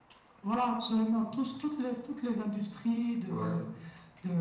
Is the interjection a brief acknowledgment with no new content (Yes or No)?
Yes